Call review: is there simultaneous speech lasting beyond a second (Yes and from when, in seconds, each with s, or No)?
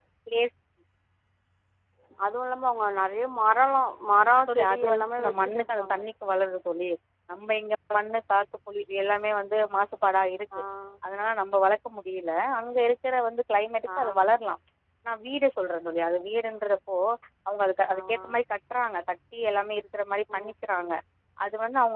Yes, from 4.4 s